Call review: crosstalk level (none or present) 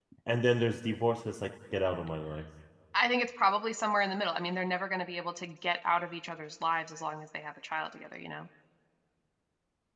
none